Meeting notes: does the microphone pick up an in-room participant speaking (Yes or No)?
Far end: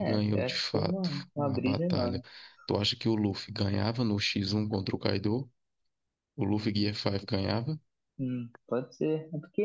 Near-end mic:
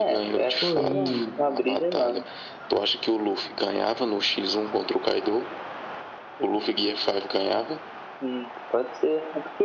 Yes